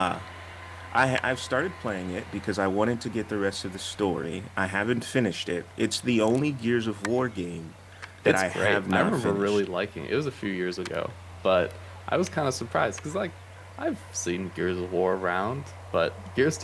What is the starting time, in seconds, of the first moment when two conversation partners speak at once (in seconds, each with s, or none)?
8.2 s